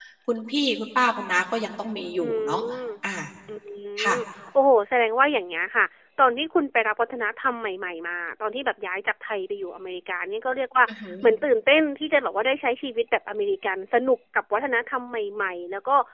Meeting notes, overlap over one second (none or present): none